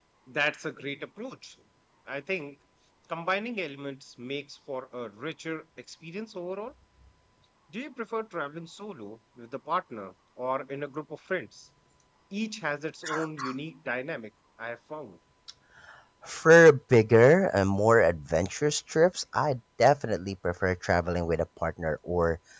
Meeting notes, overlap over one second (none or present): none